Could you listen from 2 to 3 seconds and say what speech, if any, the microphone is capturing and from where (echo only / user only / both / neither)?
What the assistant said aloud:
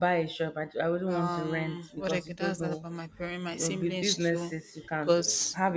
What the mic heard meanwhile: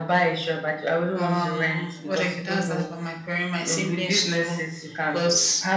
echo only